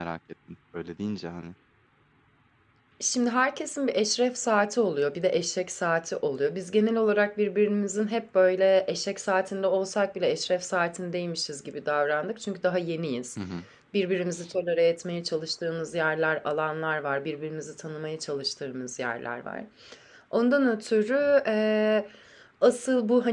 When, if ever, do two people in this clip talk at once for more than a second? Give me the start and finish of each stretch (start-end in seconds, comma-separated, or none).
none